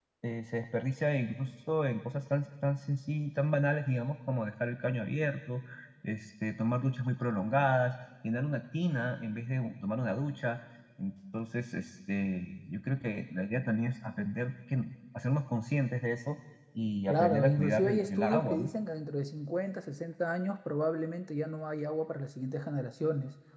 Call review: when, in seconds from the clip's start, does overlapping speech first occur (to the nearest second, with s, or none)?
17 s